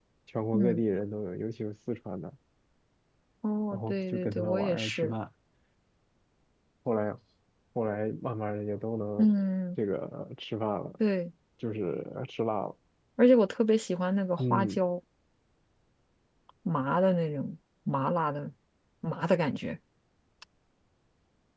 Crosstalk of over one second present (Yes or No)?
Yes